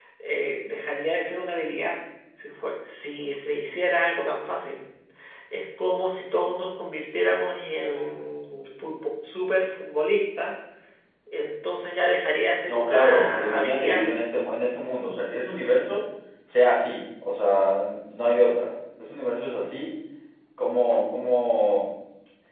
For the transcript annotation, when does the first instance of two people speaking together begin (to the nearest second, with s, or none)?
13 s